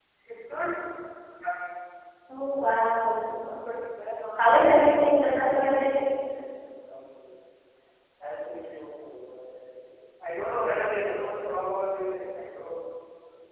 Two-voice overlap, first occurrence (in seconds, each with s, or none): 4.4 s